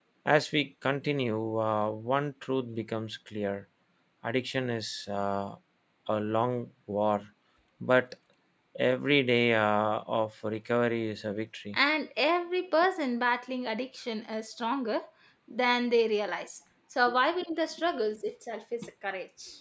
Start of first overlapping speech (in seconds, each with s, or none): none